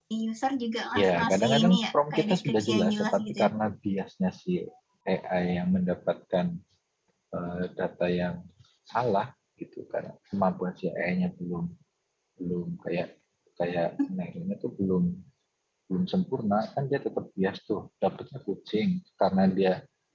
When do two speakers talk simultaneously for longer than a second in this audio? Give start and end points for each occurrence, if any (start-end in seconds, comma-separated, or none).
1.0-3.4